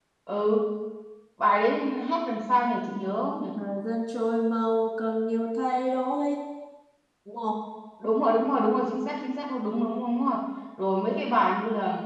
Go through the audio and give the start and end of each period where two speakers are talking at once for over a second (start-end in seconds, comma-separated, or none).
none